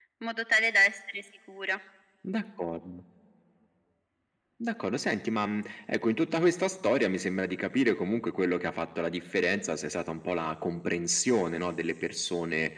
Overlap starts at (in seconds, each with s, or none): none